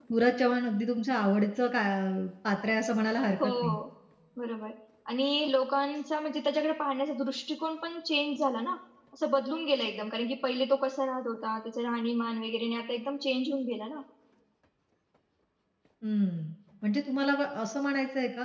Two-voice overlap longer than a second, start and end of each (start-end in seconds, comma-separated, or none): none